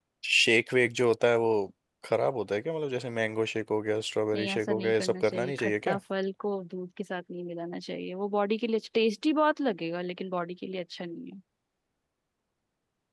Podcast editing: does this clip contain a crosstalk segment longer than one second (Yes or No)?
Yes